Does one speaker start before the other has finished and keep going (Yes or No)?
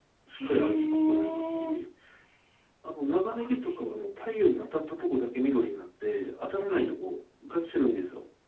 Yes